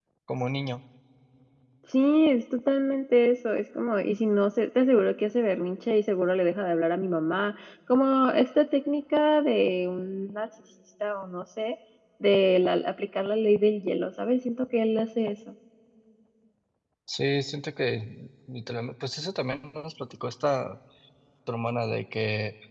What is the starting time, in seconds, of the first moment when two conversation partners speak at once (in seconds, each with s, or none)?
none